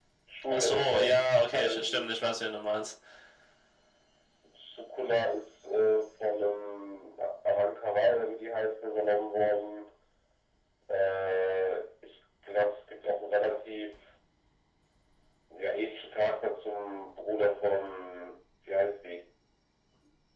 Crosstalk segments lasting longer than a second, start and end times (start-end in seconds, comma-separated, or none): 0.5-2.1